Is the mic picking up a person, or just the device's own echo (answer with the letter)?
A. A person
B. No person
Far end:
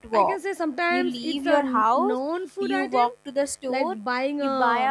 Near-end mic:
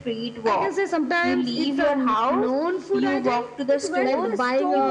A